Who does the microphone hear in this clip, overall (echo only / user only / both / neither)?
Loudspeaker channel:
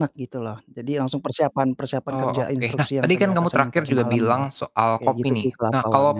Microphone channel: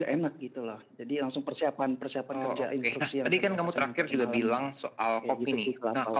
echo only